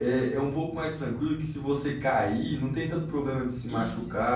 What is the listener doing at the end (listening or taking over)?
listening